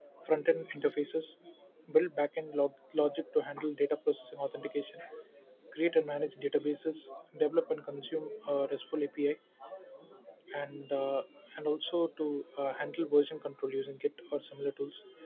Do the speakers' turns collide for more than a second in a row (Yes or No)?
No